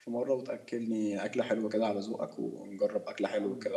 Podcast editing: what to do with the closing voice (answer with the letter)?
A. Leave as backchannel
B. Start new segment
B